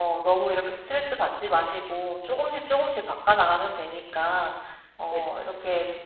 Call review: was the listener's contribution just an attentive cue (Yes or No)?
Yes